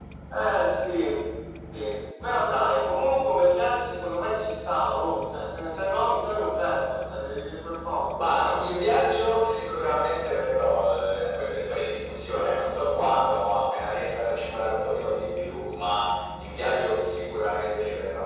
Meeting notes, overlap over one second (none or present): none